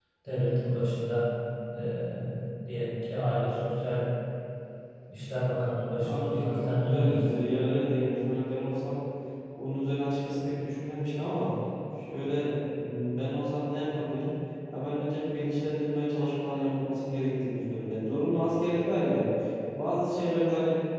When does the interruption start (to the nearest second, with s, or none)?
6 s